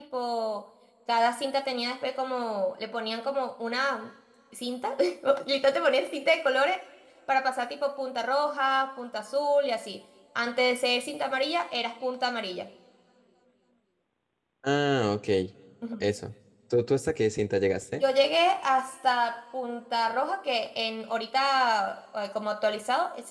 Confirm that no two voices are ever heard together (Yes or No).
Yes